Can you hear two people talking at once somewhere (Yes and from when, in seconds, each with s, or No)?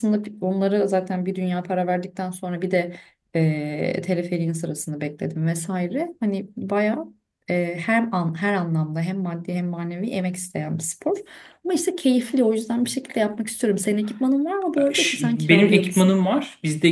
Yes, from 14.8 s